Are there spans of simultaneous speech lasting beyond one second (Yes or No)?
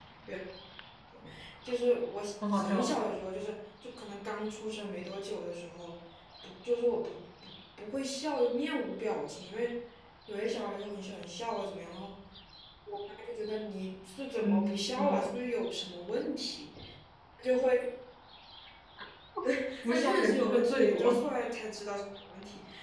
Yes